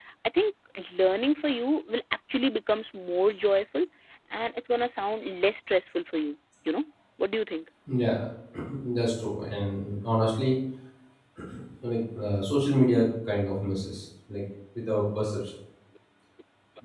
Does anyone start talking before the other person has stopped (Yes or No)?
No